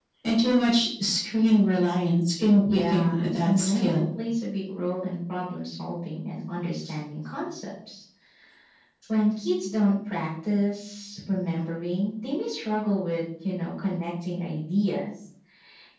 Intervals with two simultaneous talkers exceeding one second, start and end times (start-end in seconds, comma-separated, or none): 2.7-4.0